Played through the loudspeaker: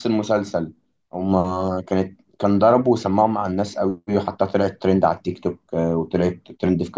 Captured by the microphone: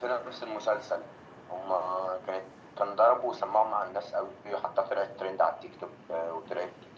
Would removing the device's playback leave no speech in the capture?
Yes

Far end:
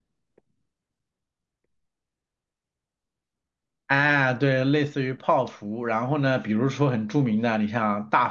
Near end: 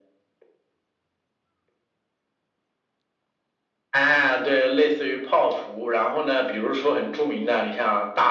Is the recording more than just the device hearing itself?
No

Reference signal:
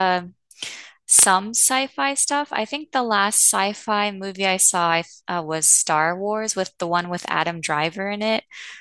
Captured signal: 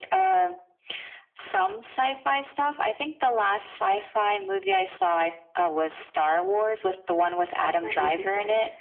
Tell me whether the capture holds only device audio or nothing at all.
No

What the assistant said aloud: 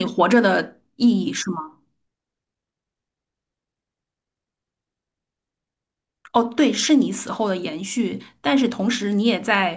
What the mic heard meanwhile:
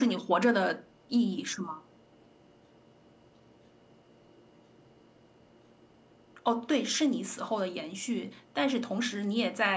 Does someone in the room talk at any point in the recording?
No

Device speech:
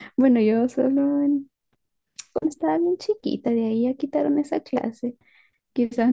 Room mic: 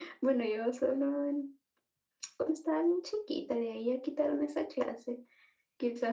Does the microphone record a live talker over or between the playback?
No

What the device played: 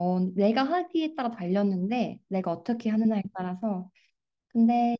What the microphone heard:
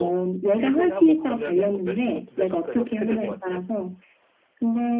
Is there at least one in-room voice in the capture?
Yes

